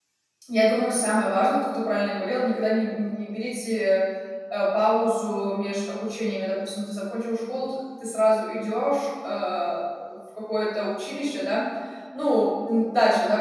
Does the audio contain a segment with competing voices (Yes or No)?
No